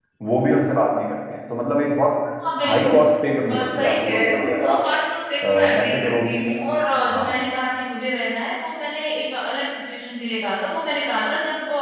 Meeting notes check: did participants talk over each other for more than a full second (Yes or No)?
Yes